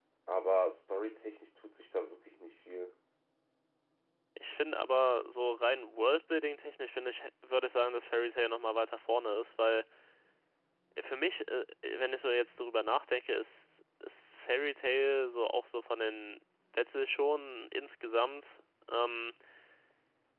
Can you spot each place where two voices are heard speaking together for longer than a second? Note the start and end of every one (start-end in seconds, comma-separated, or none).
none